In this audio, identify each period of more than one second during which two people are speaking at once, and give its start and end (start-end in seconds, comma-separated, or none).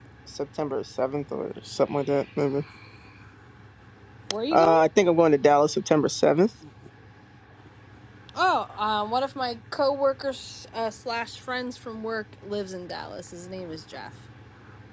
none